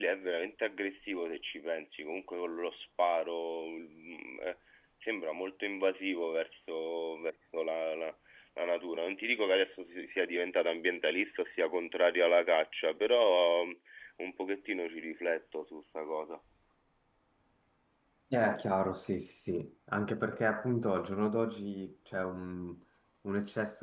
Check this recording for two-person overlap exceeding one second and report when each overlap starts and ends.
none

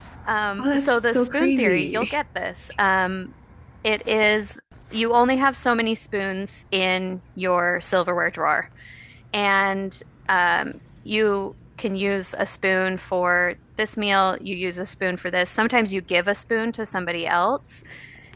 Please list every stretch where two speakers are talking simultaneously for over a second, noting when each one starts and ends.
0.6-2.1

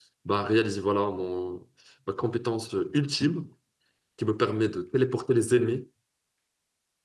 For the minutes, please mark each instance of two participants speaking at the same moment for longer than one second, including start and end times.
none

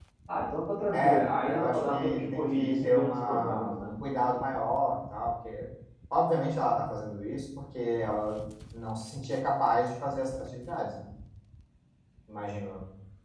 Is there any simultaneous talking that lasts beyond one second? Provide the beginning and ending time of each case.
0.9-3.9

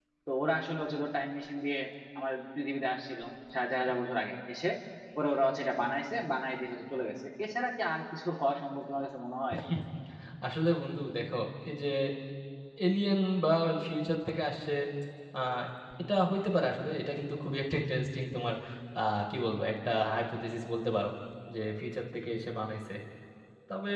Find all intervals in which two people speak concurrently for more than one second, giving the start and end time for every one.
none

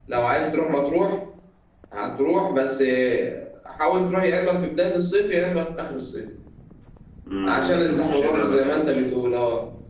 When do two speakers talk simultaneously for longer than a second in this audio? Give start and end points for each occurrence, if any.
7.4-8.8

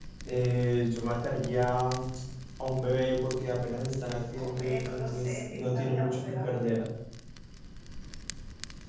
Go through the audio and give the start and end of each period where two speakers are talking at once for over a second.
4.4-6.8

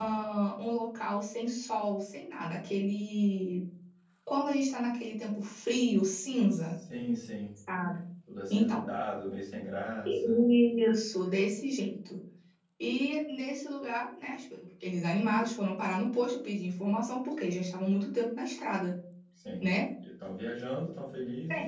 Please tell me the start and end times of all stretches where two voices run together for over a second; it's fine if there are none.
none

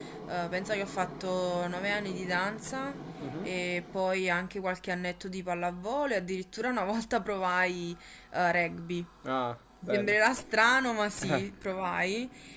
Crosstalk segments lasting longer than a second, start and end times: none

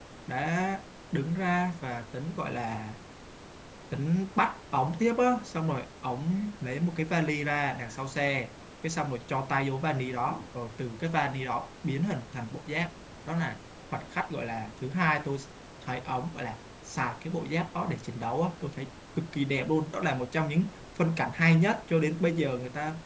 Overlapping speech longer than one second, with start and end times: none

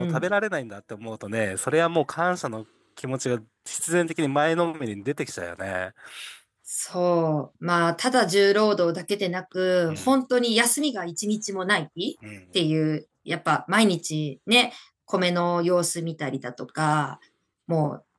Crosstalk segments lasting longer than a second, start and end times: none

